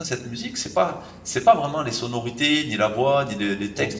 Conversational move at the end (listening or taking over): taking over